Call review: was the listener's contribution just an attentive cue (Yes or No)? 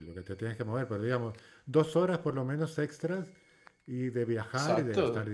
No